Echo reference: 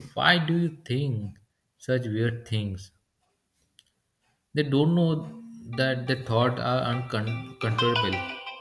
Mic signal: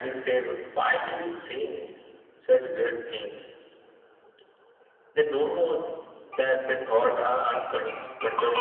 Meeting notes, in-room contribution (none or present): none